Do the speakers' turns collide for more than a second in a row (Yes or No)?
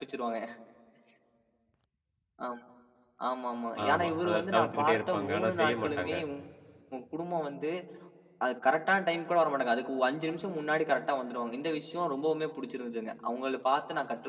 Yes